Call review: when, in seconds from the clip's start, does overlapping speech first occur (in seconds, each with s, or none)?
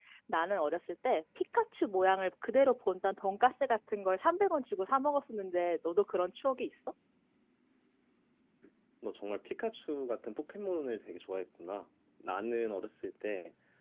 none